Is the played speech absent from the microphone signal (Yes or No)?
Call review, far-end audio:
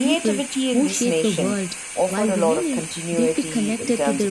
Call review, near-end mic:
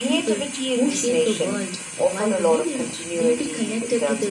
No